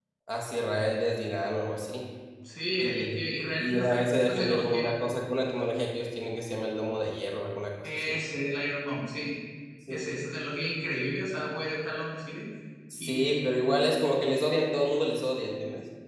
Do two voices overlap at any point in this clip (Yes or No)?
Yes